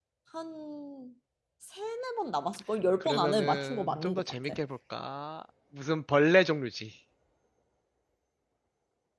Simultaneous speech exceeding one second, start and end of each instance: 3.0-4.5

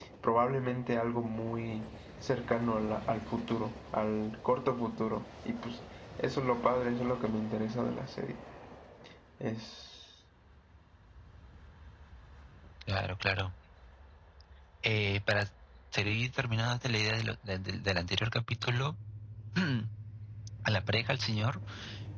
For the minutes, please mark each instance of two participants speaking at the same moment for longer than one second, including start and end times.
none

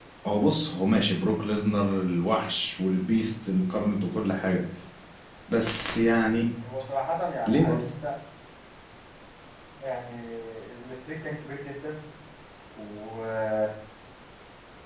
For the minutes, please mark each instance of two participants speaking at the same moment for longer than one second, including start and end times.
none

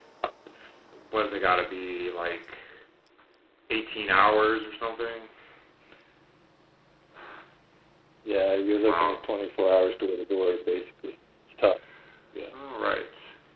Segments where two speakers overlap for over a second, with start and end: none

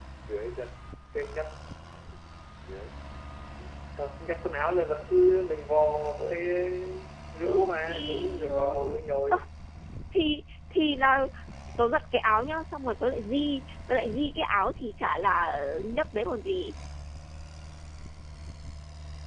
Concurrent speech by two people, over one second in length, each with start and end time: 7.4-8.7

